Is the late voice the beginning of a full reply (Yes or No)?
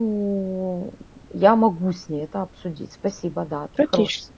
Yes